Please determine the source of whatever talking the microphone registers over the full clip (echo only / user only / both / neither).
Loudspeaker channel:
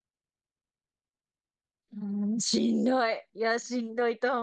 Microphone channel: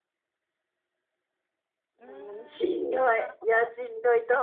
both